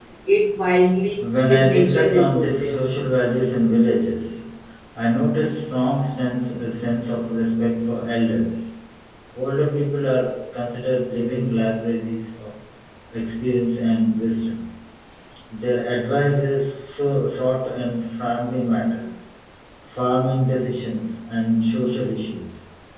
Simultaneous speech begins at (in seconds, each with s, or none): 1.2 s